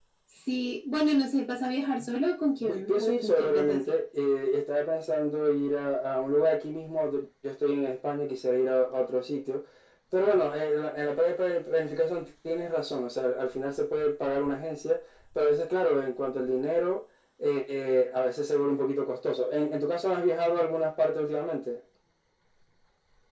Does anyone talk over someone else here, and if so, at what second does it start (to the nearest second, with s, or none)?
3 s